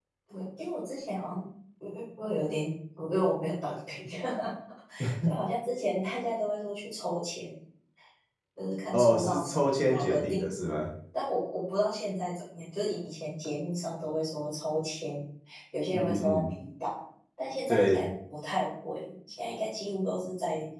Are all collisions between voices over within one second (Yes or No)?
No